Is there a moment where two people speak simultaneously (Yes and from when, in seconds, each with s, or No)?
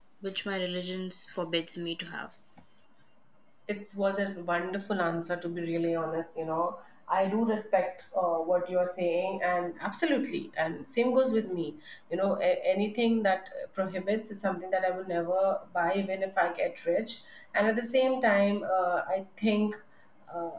No